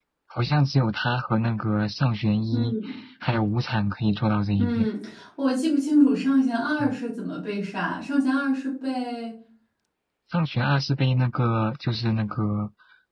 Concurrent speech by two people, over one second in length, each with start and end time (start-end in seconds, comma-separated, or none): none